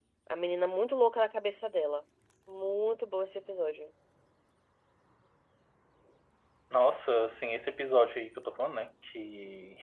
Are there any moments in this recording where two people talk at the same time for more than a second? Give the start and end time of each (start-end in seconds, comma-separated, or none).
none